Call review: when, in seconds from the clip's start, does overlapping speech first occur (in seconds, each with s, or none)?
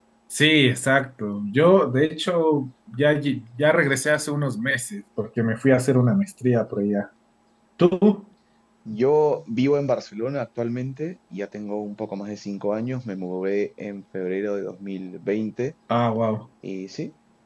none